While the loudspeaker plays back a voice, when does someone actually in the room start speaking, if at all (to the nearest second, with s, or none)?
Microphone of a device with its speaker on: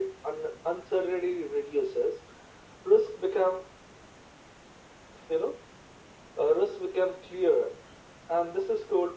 none